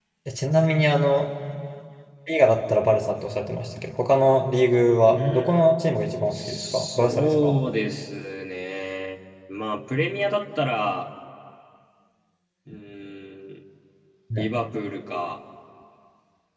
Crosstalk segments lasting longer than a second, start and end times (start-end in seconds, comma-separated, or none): 6.3-7.6